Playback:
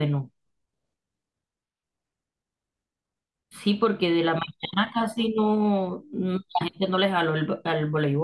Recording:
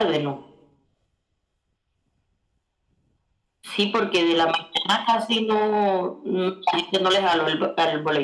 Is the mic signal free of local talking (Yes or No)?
Yes